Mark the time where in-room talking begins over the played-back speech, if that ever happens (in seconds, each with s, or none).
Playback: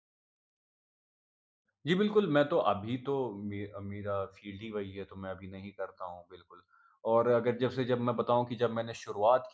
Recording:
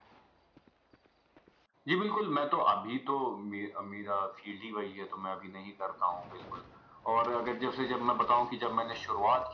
none